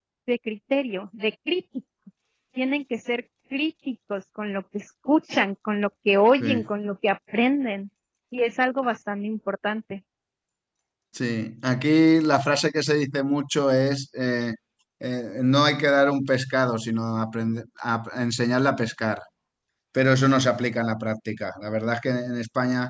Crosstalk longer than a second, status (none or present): none